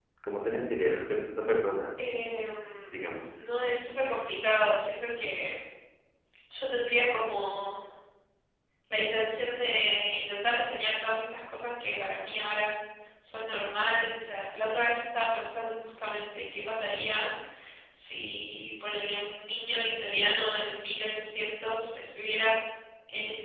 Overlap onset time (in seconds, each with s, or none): none